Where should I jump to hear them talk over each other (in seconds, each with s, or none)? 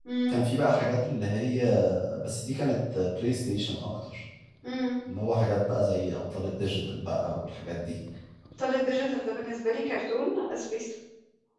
none